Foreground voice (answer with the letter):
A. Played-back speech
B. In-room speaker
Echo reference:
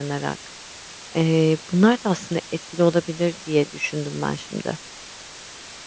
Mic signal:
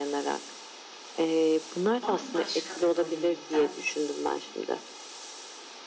A